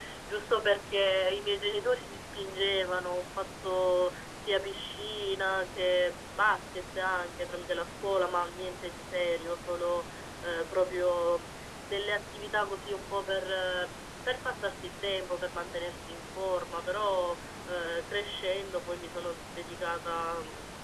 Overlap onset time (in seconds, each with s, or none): none